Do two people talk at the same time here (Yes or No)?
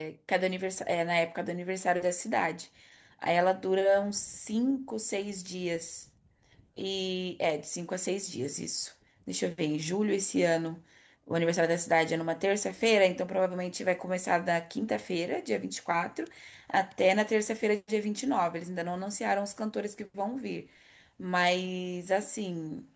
No